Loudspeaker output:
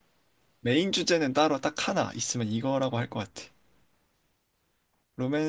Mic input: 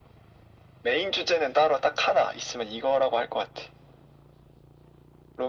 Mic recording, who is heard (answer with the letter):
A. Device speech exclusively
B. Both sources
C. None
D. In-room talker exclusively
A